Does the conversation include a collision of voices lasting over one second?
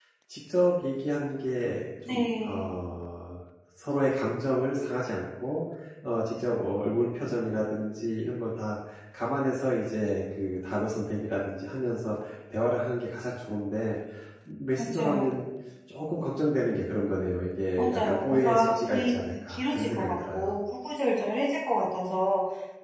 Yes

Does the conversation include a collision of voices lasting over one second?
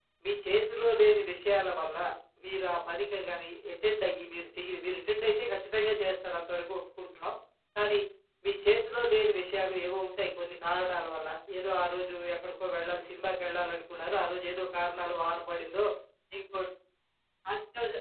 No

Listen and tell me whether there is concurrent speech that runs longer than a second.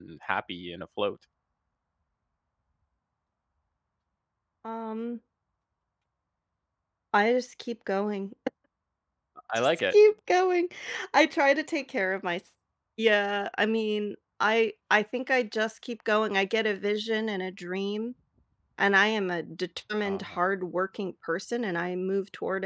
No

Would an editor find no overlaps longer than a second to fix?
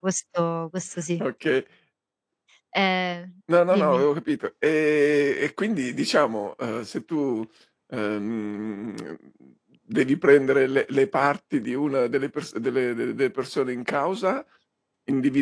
Yes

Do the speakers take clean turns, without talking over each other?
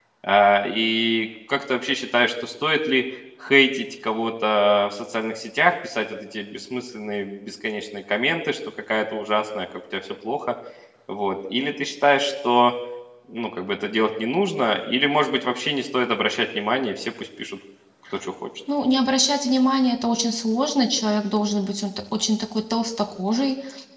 Yes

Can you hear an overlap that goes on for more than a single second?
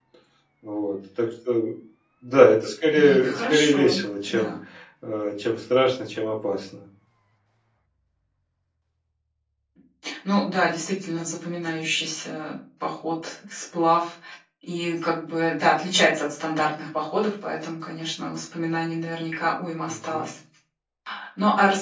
Yes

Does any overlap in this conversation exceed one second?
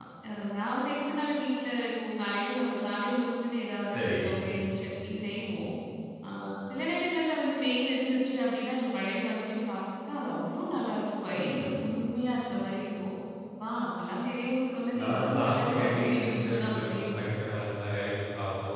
Yes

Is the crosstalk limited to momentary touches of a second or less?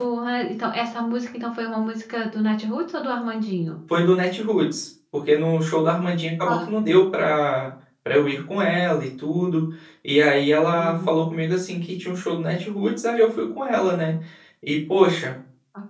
Yes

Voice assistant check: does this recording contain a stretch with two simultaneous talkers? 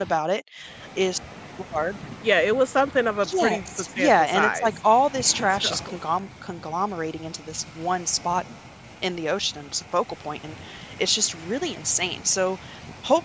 Yes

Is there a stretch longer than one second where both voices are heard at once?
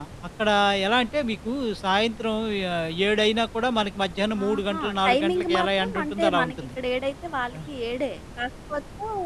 Yes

